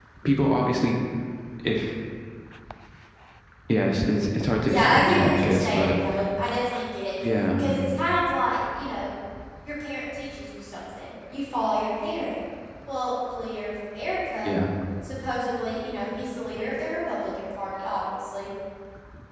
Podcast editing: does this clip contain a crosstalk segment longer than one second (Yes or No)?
Yes